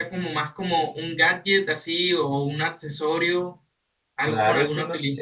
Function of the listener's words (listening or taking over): taking over